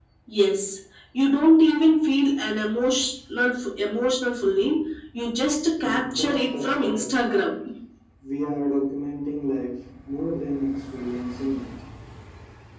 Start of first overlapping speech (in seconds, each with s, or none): 5.8 s